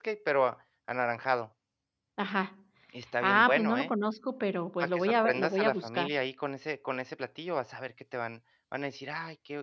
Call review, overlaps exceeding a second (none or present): present